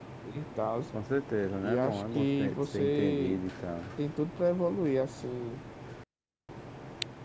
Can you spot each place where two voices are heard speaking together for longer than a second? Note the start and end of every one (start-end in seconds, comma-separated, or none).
1.6-3.4